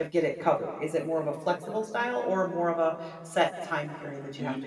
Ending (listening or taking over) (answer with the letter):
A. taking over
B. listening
A